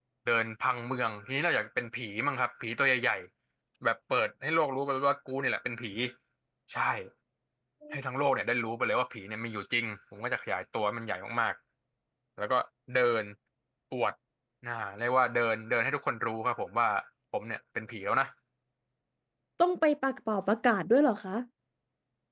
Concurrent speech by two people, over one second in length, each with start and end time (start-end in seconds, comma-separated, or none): none